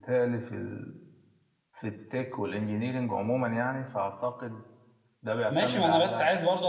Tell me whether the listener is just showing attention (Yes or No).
No